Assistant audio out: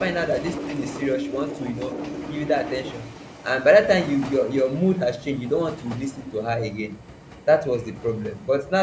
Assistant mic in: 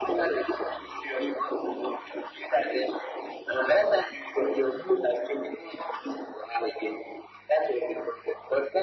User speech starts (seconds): none

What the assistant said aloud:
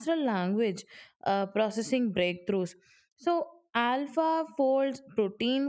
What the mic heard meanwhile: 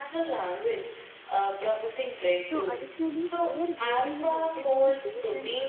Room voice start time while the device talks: 2.4 s

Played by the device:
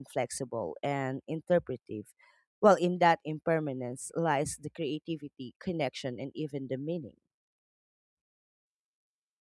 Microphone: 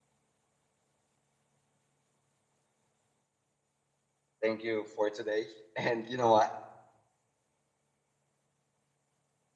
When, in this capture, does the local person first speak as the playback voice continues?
4.4 s

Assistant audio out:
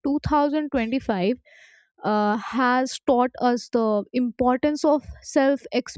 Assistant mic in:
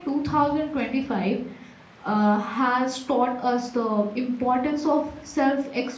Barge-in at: none

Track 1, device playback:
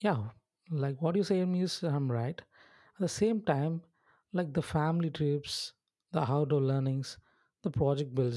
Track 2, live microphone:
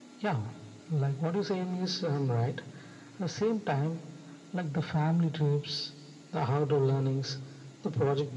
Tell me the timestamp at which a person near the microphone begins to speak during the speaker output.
none

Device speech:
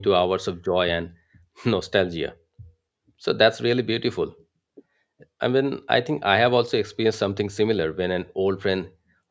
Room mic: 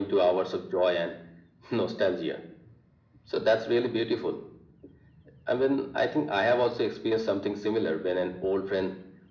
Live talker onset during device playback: none

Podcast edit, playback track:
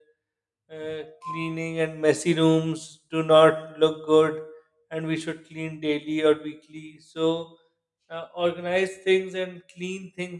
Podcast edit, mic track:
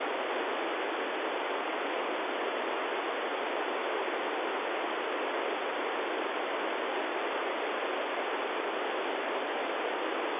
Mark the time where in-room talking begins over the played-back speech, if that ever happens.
none

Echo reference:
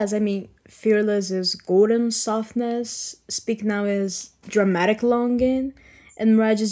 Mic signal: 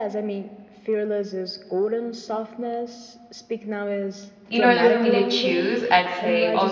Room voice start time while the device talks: 4.5 s

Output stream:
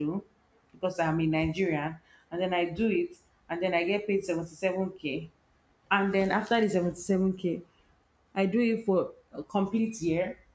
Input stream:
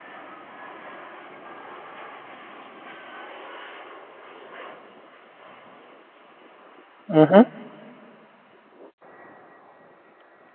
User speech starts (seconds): 7.1 s

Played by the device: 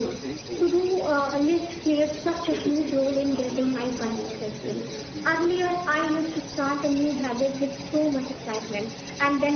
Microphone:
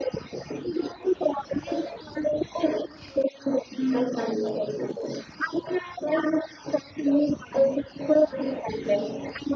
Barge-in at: none

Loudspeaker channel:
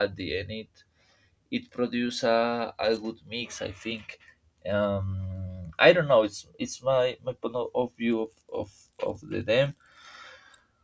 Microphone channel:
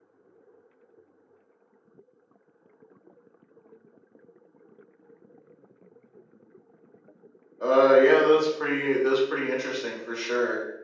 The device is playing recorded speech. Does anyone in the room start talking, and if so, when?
7.6 s

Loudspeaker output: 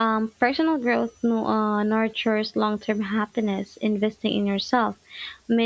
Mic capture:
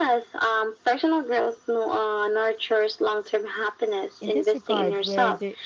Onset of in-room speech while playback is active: 4.2 s

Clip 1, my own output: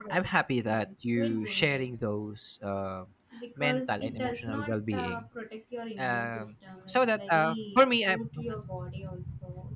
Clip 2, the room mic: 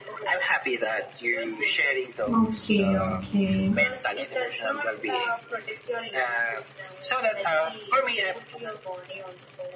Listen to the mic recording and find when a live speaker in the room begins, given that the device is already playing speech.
2.3 s

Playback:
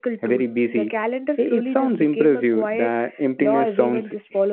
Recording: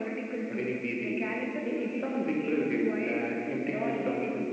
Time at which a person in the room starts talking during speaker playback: none

